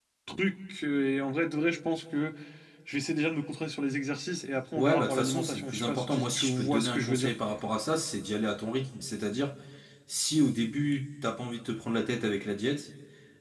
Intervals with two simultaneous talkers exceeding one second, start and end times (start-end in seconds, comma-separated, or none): 4.8-7.4